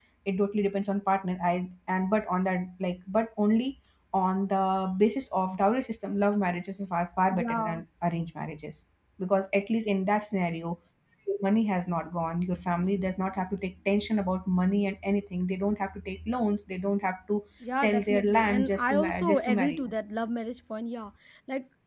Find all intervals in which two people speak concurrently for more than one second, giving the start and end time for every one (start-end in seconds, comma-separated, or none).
17.8-19.9